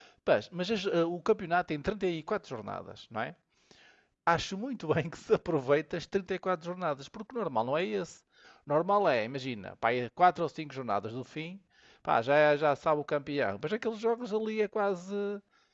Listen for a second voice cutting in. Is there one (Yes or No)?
No